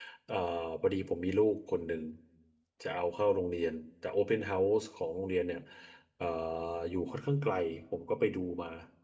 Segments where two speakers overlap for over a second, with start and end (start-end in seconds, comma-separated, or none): none